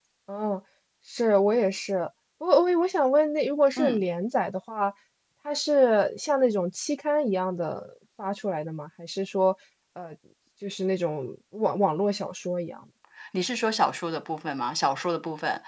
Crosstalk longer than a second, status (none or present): none